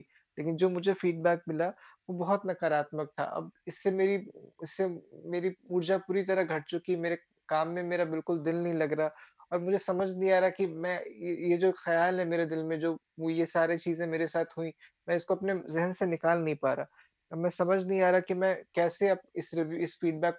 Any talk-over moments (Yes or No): No